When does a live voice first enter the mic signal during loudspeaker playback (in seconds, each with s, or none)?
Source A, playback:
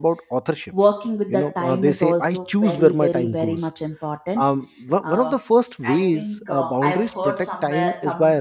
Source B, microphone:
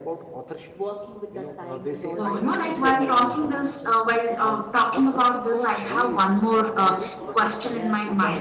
2.2 s